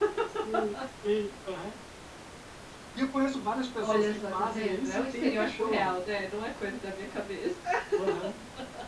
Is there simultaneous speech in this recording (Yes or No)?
Yes